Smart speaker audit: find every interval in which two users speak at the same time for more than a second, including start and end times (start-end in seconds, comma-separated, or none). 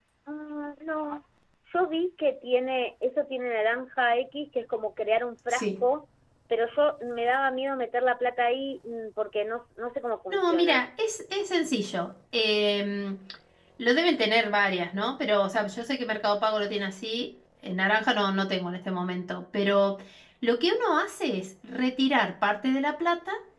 none